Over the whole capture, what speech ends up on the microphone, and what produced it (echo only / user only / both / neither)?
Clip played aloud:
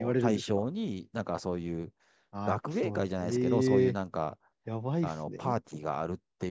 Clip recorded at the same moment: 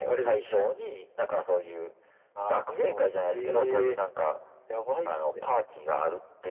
echo only